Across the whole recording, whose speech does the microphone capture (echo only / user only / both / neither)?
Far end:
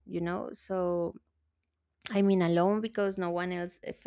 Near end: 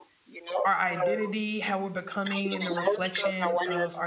both